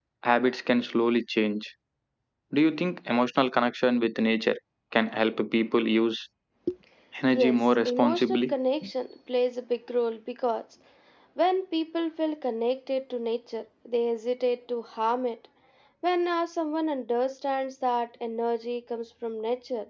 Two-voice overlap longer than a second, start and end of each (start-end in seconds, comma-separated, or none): 7.3-8.5